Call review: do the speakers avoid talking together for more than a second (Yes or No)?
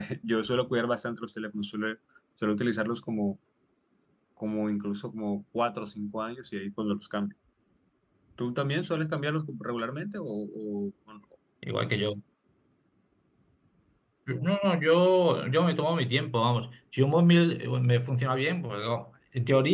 Yes